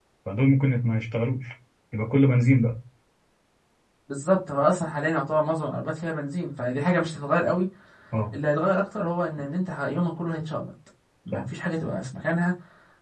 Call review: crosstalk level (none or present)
none